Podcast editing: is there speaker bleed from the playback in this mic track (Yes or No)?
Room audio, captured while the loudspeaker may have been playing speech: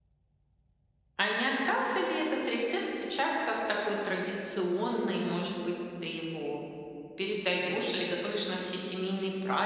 No